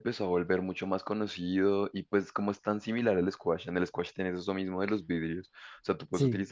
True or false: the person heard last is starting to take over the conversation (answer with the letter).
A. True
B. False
B